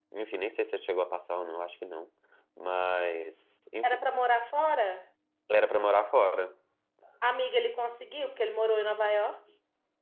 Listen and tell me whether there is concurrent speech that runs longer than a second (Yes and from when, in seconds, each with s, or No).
No